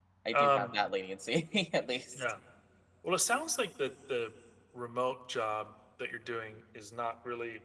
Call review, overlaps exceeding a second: none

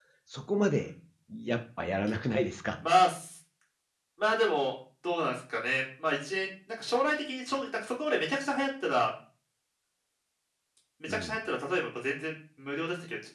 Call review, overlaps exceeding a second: none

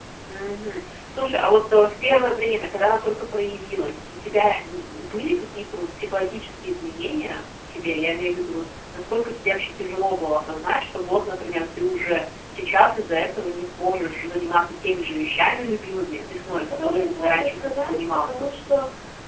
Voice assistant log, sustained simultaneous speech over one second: present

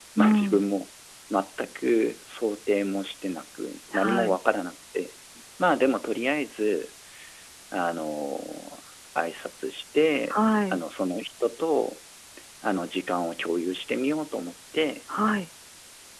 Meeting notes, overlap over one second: none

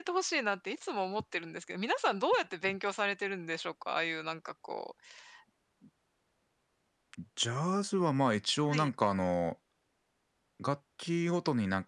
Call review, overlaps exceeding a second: none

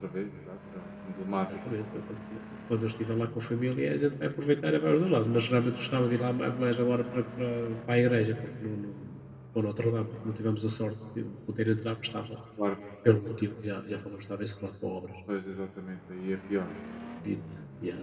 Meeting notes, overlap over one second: none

